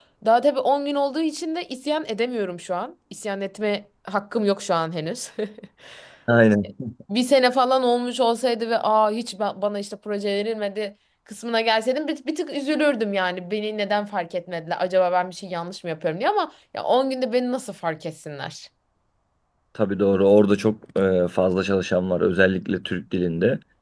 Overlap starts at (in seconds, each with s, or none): none